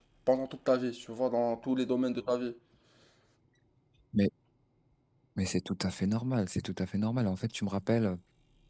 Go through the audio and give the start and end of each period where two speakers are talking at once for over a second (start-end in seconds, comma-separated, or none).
none